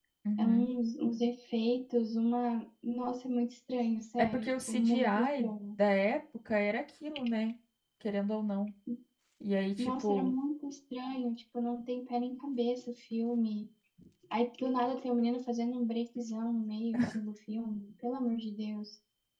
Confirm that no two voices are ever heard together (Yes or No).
No